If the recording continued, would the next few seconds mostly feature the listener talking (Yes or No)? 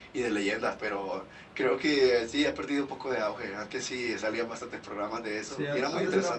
Yes